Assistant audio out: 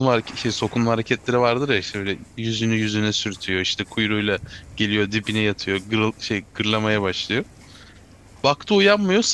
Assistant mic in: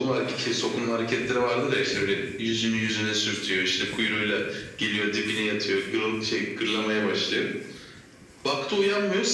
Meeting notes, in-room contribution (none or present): none